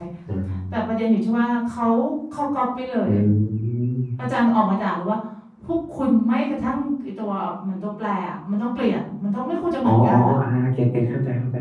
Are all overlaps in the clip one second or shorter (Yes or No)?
Yes